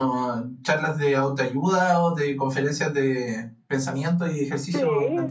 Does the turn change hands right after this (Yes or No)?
Yes